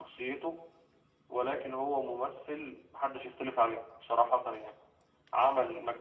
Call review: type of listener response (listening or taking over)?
listening